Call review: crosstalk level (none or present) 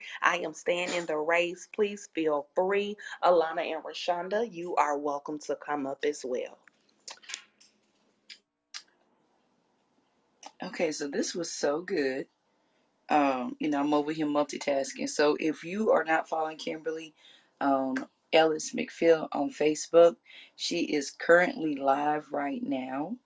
none